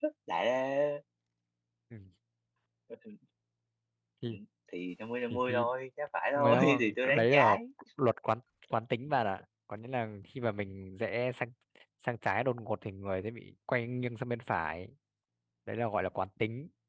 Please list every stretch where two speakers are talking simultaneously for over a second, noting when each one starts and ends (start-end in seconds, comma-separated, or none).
6.4-7.6